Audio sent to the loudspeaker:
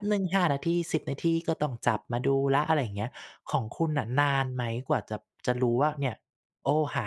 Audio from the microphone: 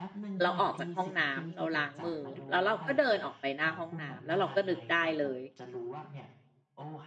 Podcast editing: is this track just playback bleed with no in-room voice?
No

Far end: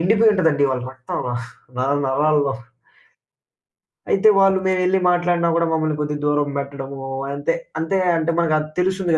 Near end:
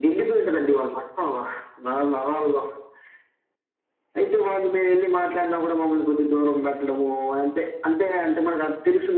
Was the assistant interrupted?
No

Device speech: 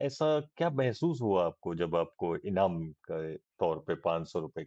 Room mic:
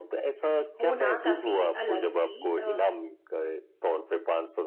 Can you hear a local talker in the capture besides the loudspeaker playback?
Yes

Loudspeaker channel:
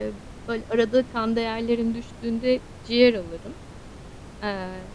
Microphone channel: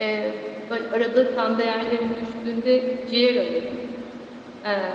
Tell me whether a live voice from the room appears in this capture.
No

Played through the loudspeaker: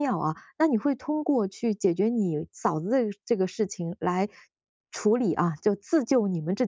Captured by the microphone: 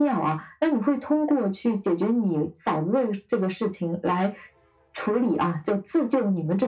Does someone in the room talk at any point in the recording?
No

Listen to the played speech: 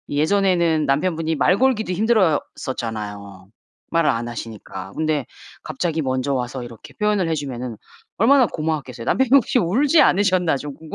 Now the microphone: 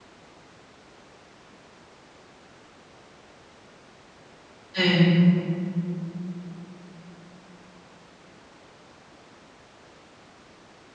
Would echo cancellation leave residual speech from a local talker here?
Yes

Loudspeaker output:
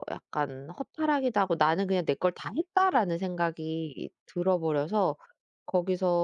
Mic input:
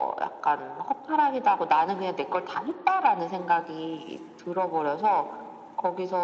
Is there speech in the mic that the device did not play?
No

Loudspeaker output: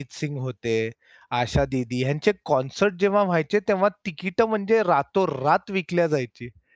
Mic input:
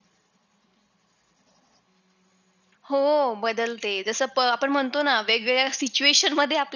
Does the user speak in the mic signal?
Yes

